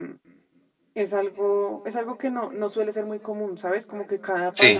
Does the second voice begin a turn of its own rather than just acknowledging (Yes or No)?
No